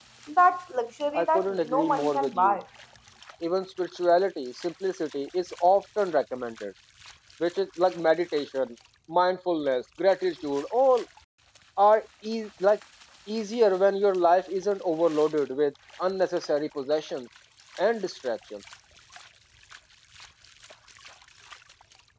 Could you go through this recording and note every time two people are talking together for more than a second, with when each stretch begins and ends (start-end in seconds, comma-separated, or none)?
1.1-2.6